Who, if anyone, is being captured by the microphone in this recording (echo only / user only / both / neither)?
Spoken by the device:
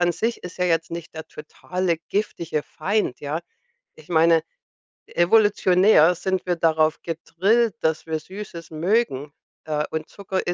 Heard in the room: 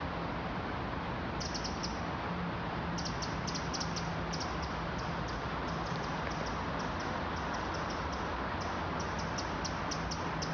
neither